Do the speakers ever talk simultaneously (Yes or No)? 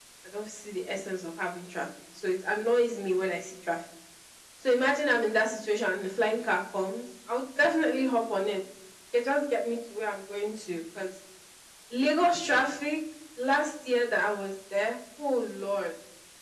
No